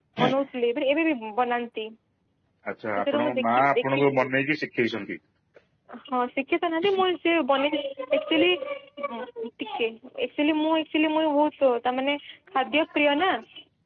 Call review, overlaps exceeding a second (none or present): present